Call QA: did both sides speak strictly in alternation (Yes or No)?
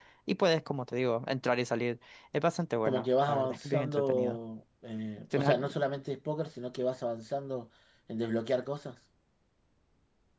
No